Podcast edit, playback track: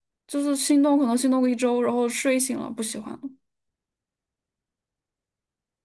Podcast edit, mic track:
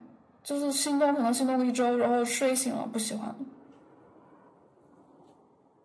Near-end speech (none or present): none